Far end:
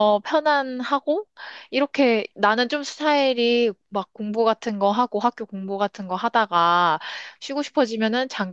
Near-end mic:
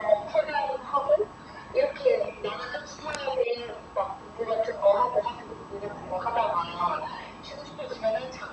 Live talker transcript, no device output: none

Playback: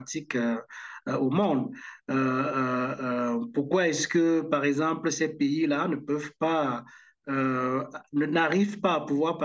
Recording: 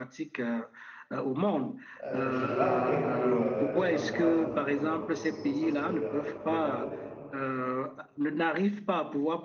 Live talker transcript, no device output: Euh, je dois avouer que euh, les droits de douane euh, ont eu une conséquence assez euh, globale

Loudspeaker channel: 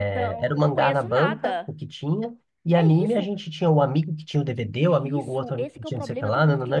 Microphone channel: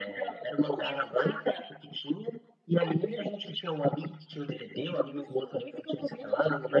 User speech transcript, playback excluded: none

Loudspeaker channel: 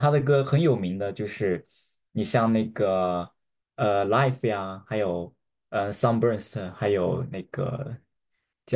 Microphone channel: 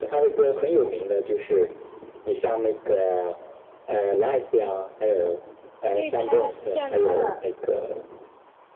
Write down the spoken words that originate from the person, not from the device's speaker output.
所以它虽然它的

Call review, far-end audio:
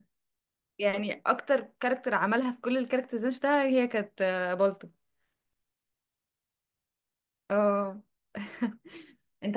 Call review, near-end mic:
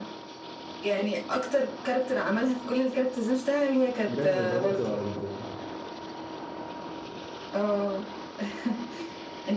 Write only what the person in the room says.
جامد ده ممكن اقعد اه

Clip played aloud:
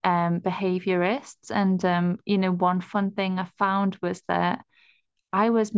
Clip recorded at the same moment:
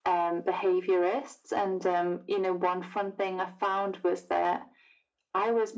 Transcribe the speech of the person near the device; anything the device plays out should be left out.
none

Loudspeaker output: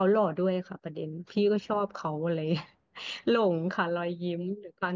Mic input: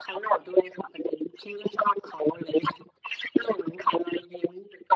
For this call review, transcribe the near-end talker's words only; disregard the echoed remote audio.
none

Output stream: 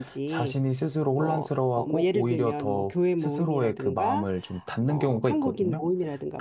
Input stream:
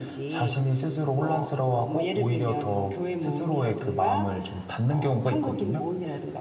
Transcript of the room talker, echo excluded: none

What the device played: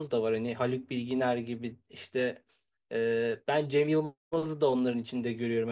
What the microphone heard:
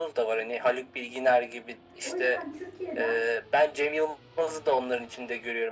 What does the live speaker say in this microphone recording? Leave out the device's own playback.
O yüzden Türkiye'den

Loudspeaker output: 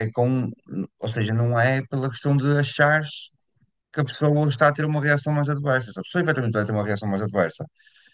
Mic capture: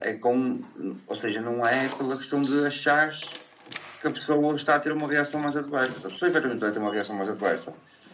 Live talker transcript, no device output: none

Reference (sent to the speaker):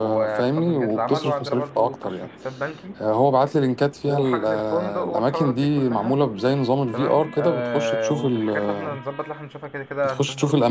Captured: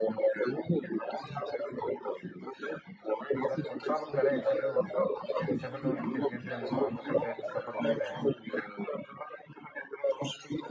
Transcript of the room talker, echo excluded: زي الفل صاحبك ده رايق شكله يعني سافر دول كتير جدا وعنده خلفية في السفر وكده يعني

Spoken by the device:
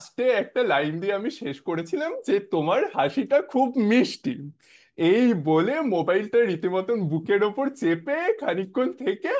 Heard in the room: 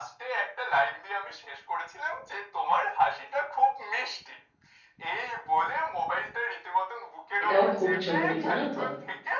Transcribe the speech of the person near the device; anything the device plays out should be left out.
এটাও খুব জরুরি জানো তো

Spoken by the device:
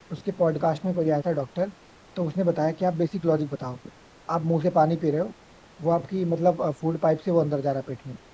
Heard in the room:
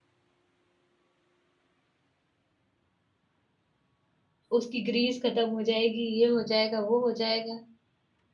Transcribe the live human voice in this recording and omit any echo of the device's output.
उसकी ग्रीस खत्म हो जाएगी ये हो जाएगा वो हो जाएगा

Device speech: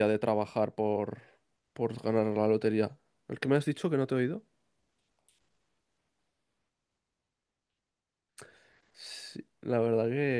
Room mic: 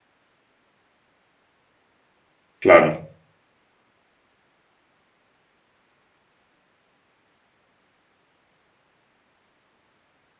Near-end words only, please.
Claro,

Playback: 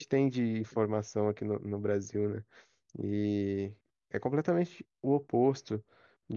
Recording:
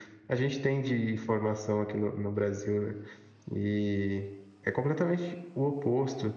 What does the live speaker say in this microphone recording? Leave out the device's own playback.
none

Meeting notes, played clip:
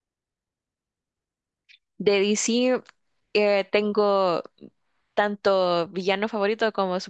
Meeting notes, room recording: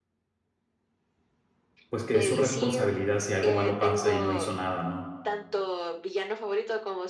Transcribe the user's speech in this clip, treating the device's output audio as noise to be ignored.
pues, que es su responsabilidad si algo malo pasa y no hizo nada, ¿no?

